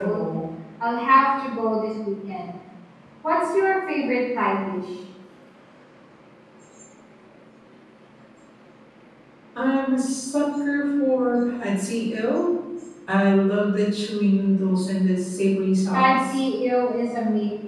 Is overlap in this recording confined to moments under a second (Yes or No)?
Yes